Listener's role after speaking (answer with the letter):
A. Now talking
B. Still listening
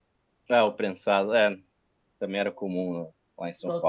A